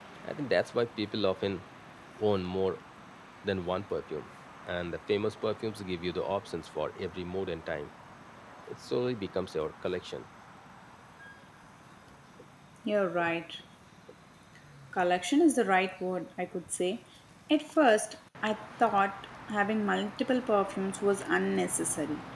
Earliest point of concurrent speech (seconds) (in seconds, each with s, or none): none